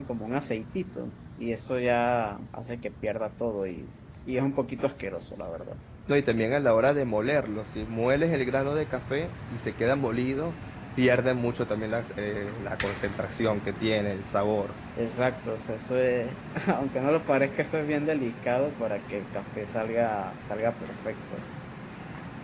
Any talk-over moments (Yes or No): No